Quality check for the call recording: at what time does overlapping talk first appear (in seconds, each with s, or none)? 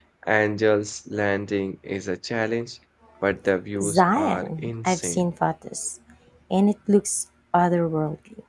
3.8 s